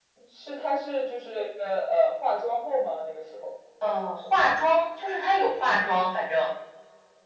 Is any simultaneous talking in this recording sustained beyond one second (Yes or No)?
No